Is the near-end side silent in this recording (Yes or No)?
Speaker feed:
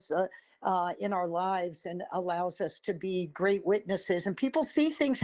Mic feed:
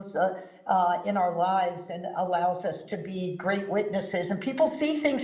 Yes